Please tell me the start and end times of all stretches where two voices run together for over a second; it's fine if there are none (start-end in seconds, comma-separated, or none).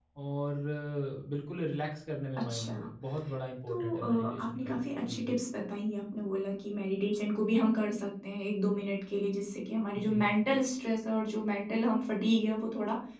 3.7-5.2